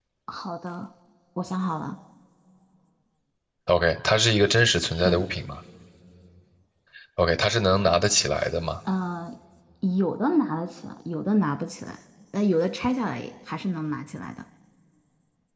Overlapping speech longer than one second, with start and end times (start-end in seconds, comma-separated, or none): none